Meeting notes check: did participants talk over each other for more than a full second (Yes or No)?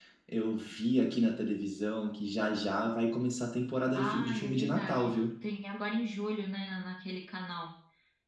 Yes